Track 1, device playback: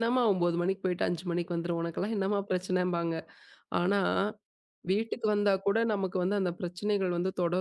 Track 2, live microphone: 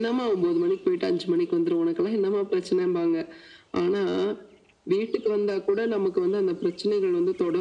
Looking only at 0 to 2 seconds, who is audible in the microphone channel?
echo only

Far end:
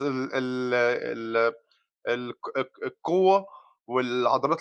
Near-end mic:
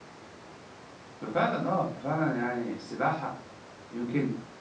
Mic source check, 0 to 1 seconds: neither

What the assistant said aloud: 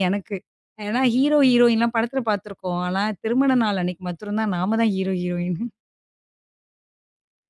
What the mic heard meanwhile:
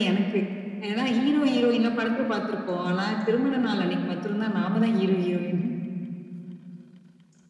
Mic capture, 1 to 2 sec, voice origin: echo only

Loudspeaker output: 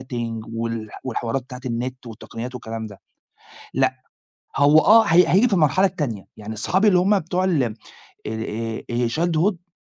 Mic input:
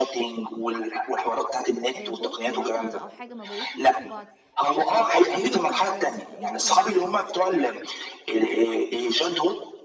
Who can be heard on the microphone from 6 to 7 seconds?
both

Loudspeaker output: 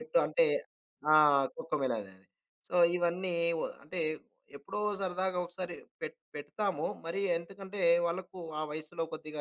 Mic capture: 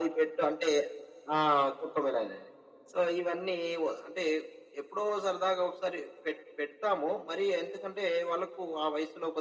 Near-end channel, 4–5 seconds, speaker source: echo only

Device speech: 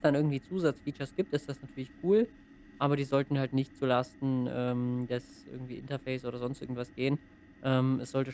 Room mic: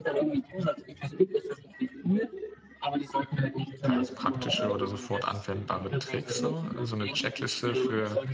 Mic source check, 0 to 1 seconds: echo only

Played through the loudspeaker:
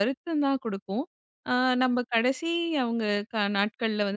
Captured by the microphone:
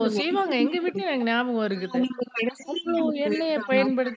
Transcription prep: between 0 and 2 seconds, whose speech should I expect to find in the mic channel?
both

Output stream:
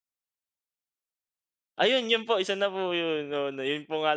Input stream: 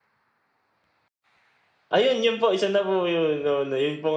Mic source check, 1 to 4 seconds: echo only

